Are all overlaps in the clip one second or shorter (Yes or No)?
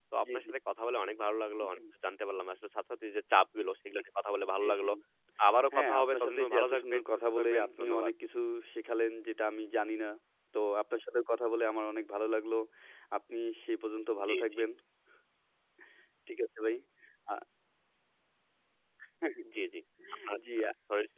No